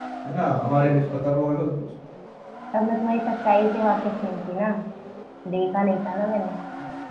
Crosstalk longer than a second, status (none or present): none